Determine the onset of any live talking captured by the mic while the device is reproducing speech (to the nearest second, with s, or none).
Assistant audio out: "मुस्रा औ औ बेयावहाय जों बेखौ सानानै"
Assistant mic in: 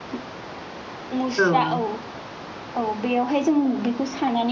1 s